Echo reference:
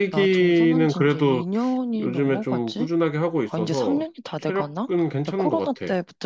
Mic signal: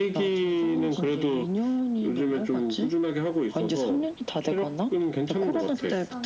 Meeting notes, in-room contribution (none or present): present